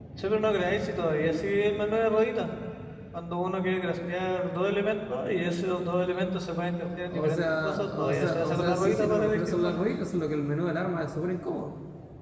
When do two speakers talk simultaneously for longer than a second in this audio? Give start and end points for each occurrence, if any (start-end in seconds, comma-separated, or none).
7.1-9.7